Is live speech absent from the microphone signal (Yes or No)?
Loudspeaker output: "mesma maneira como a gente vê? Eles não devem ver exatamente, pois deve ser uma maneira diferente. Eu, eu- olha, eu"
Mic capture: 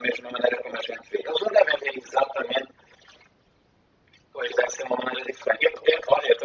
Yes